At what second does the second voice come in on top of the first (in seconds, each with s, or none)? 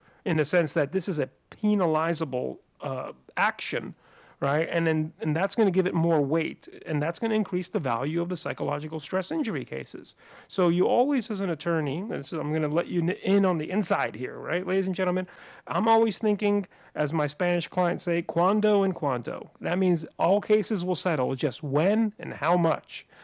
none